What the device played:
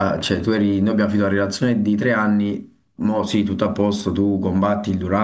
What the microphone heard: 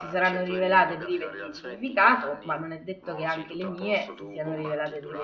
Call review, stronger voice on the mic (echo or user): user